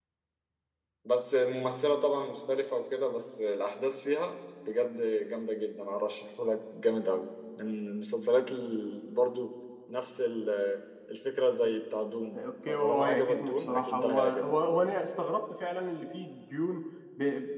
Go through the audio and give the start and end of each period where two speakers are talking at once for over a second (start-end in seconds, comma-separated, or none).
12.3-14.6